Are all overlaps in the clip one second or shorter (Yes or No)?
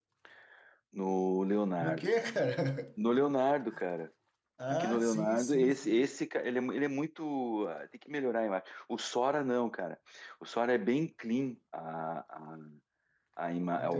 No